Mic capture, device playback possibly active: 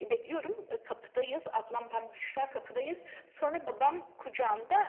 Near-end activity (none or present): none